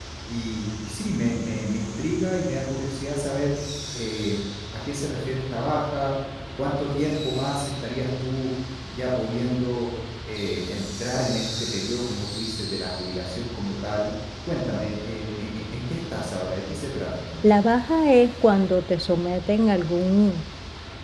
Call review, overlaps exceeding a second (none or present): none